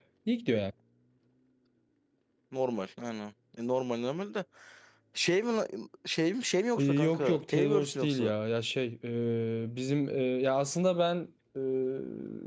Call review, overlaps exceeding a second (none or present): present